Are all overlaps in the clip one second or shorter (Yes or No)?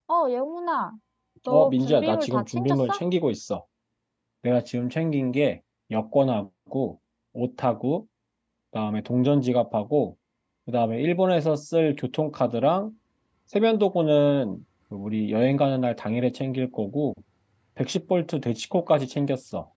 No